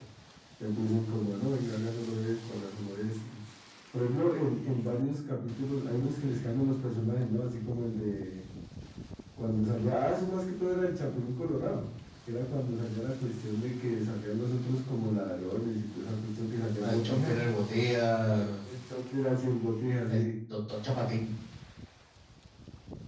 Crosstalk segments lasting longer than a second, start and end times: none

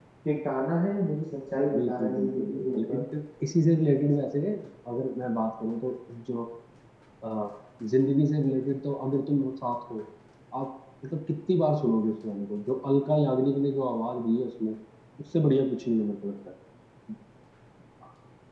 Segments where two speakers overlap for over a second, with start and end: 1.6-3.0

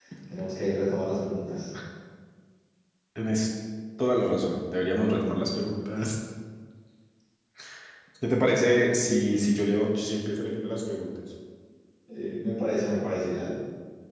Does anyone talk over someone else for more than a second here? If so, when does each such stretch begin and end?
none

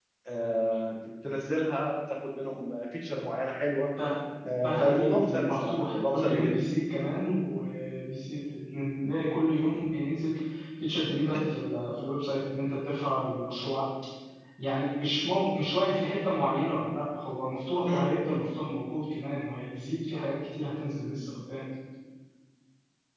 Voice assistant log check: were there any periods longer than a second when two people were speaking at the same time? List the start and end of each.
4.6-6.5

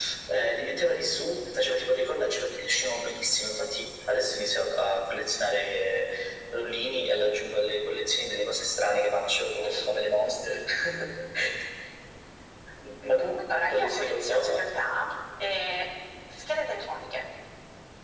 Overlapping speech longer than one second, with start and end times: 13.4-14.6

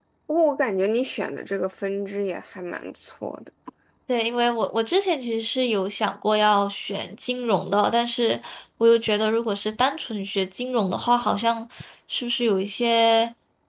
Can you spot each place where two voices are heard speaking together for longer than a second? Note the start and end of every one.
none

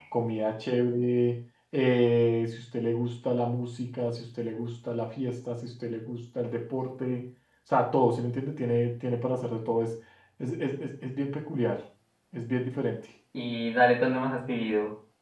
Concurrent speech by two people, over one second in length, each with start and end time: none

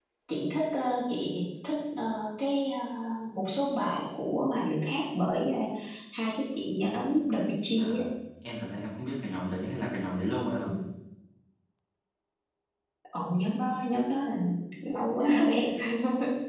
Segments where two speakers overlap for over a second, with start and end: none

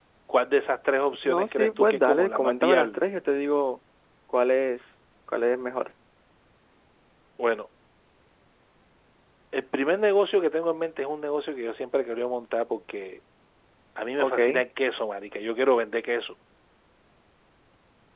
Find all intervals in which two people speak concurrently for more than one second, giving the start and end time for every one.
1.2-3.0

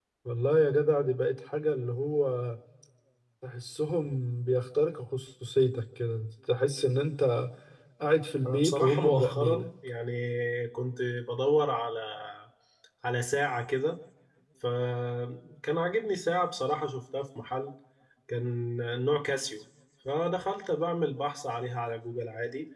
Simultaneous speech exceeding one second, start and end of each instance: 8.4-9.7

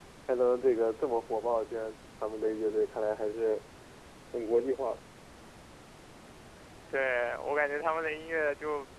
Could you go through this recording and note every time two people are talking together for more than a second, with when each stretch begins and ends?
none

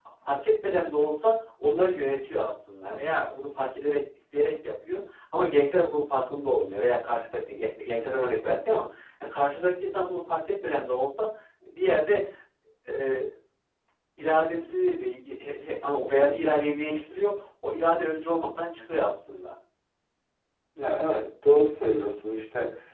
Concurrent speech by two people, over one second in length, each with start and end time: none

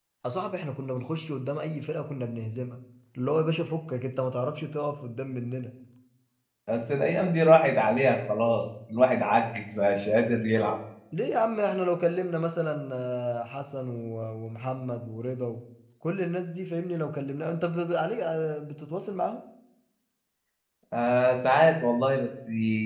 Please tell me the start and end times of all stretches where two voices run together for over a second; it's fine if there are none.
none

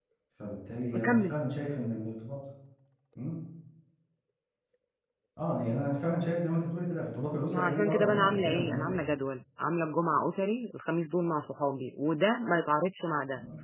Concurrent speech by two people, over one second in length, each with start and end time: 7.5-9.0

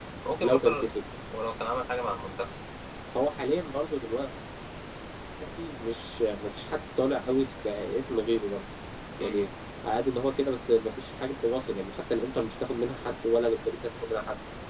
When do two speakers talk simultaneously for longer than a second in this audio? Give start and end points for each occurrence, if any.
none

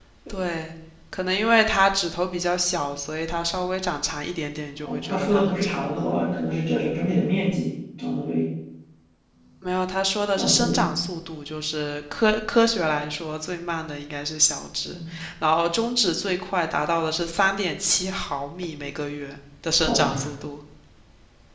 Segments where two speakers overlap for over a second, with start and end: 4.8-6.1

